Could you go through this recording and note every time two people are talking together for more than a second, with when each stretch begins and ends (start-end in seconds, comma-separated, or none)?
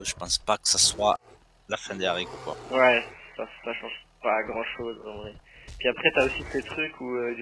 none